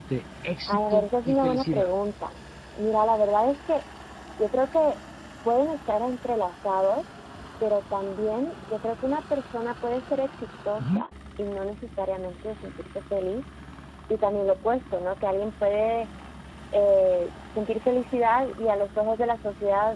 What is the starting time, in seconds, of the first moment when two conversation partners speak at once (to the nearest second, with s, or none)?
1 s